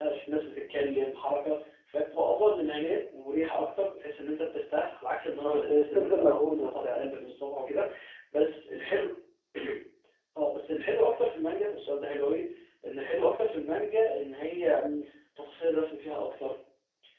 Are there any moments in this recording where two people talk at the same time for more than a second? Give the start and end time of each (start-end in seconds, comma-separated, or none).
5.5-7.3